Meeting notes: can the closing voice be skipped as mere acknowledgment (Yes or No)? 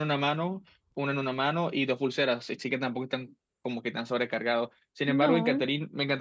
Yes